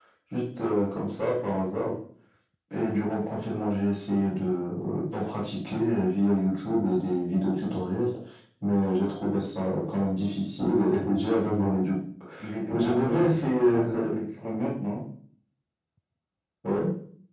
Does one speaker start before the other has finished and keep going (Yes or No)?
Yes